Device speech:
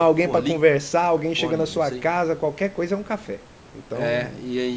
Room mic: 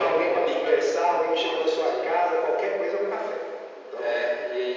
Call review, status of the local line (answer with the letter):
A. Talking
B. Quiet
B